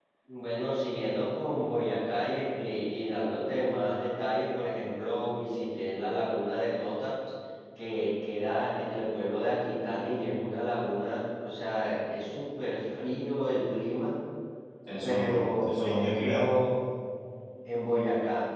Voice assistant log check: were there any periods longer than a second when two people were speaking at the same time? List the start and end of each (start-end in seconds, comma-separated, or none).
15.0-16.4